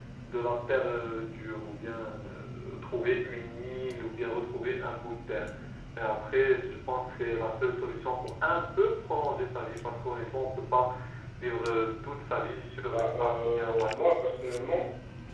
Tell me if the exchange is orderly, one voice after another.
No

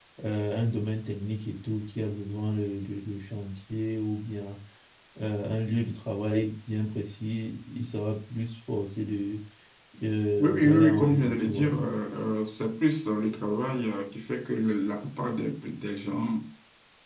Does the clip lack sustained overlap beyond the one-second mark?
No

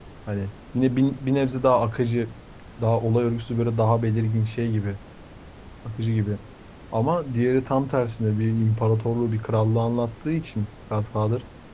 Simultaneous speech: No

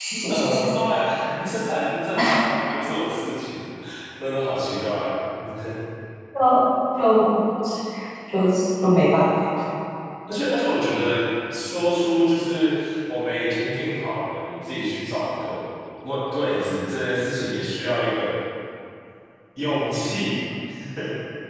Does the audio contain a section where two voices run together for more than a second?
No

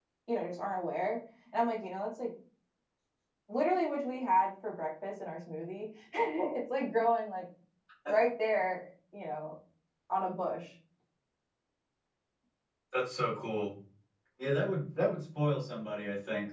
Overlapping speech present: No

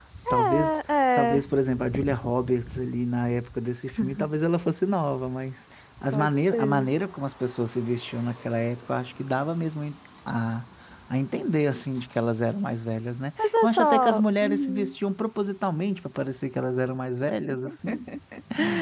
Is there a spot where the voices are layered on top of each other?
Yes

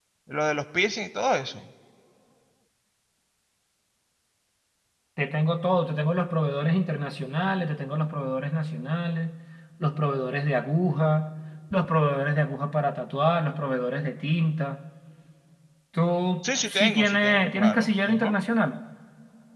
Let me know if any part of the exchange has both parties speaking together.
Yes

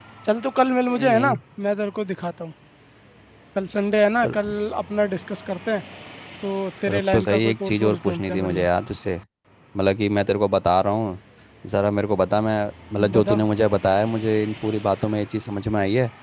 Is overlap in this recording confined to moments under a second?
No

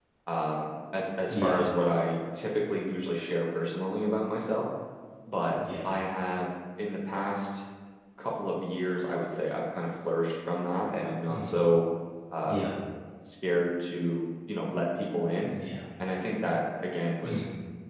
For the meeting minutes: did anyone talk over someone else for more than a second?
No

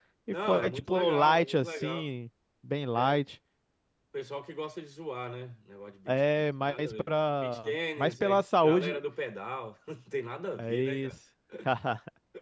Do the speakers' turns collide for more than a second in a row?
Yes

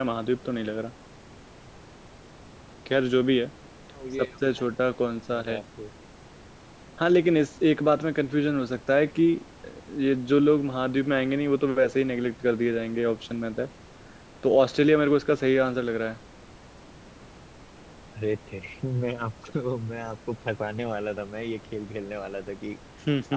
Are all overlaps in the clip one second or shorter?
Yes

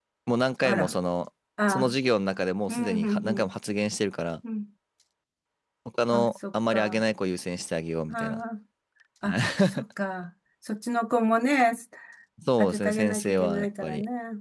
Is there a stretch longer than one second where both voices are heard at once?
Yes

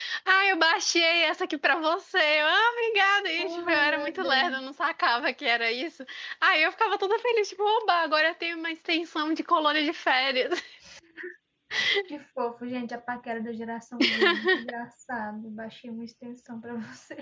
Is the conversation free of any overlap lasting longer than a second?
No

